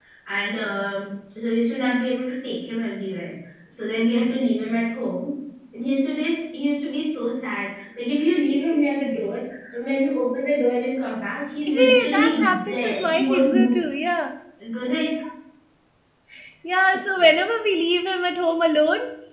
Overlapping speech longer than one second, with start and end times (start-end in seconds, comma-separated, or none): 11.7-13.8